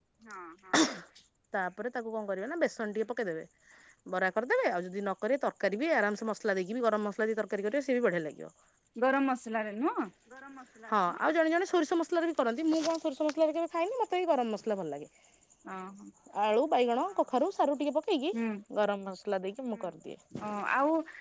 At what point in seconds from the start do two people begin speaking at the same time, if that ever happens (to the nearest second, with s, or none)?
none